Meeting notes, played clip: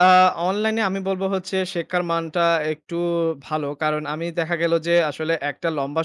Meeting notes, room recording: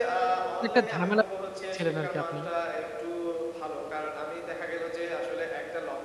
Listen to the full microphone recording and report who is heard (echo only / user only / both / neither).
both